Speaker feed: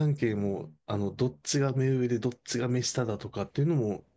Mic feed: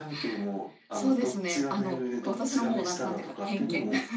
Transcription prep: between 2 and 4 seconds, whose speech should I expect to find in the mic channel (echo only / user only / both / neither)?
both